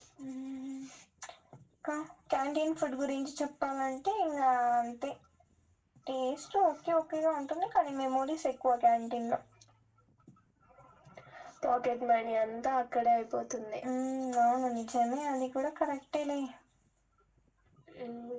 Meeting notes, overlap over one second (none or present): none